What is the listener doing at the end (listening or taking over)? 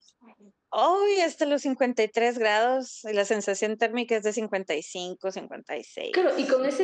taking over